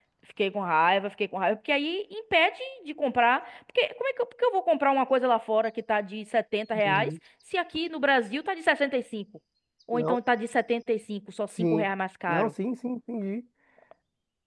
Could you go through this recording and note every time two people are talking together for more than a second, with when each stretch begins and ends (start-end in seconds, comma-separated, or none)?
none